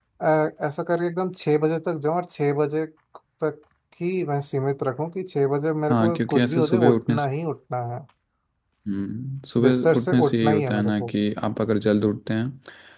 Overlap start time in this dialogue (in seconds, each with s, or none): 5.9 s